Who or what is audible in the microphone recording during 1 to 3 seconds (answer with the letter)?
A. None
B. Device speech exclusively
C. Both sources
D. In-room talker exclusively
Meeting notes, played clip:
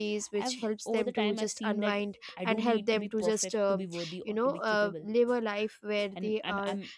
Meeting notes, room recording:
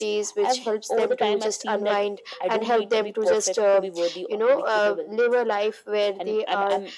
B